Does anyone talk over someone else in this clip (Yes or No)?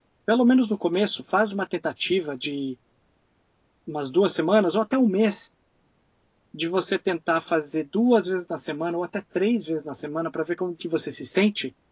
No